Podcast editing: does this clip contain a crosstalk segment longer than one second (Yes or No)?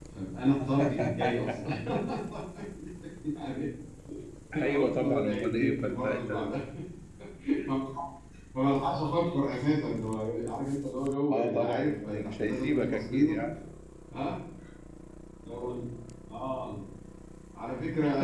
Yes